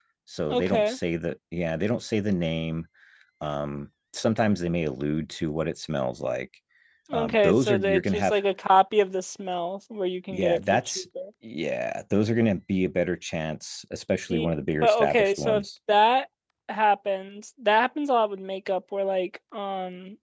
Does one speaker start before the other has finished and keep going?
Yes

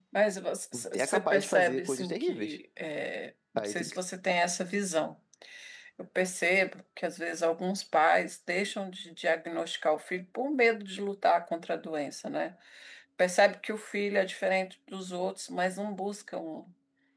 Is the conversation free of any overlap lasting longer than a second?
No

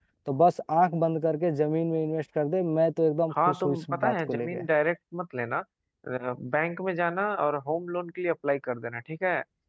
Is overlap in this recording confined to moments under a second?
No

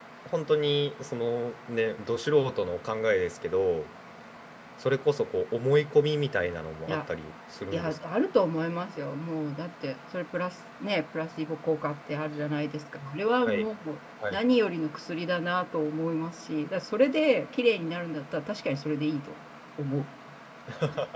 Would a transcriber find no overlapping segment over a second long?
Yes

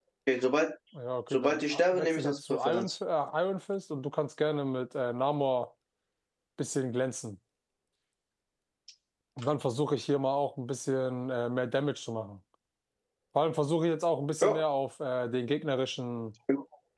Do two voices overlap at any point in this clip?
Yes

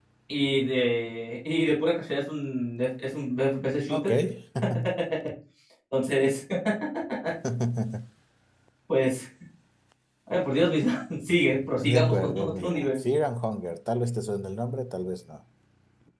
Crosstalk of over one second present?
Yes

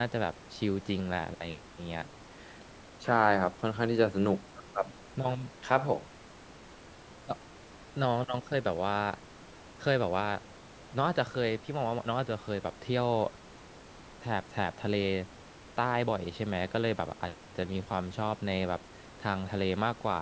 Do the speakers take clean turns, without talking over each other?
Yes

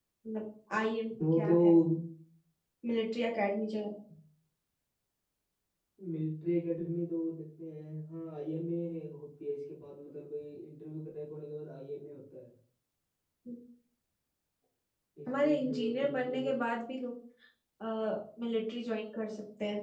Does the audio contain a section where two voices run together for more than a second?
Yes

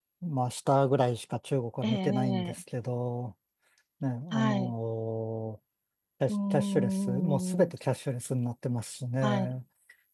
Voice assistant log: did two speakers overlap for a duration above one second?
Yes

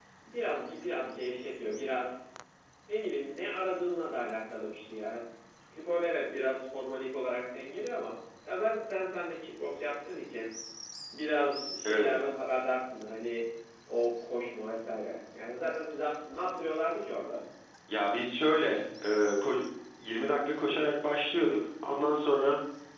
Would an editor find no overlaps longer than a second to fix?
Yes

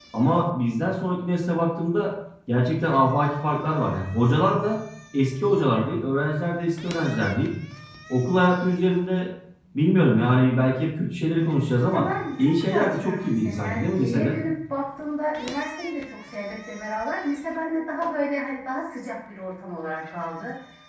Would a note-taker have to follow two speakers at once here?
Yes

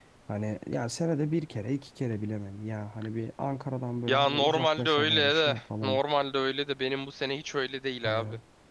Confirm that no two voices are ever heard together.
No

